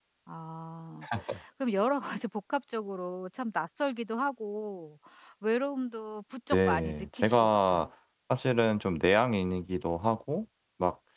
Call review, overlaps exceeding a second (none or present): present